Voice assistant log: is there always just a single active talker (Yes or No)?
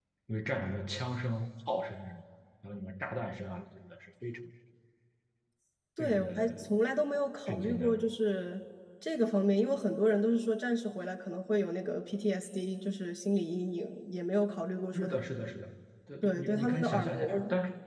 No